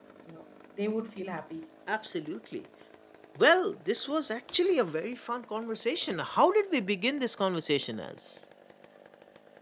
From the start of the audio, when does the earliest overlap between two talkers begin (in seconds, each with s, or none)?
none